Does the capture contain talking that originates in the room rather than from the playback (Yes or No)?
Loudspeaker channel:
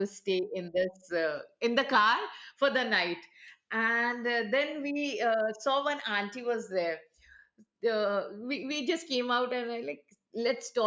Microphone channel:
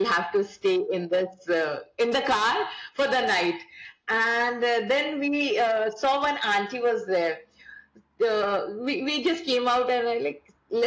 No